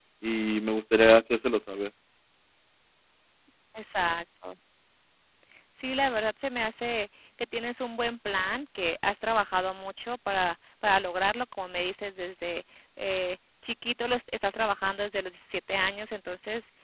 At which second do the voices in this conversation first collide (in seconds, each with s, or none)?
none